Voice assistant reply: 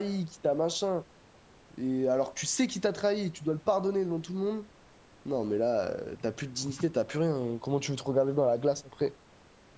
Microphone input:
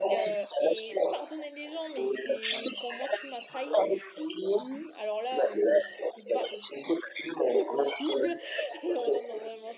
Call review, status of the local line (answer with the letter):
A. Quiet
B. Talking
B